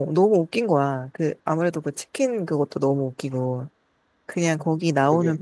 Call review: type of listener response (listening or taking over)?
listening